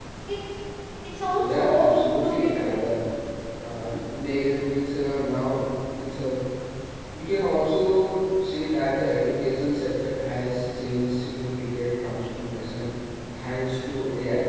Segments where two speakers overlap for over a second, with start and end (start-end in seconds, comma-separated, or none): 1.4-2.8